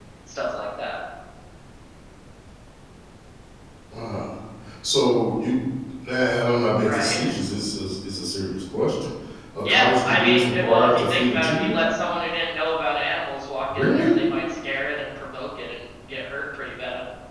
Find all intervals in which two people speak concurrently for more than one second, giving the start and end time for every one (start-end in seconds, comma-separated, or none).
9.7-11.8